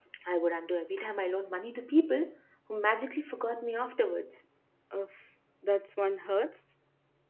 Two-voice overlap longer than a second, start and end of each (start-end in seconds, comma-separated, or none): none